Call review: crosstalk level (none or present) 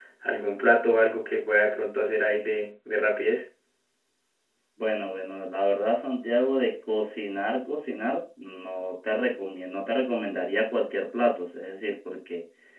none